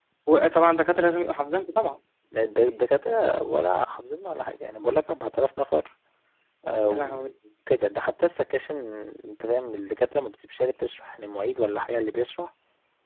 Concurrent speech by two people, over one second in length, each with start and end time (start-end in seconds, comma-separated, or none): none